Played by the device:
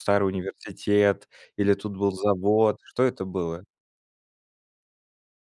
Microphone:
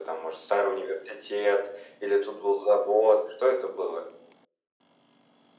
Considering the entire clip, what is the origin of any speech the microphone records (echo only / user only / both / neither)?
echo only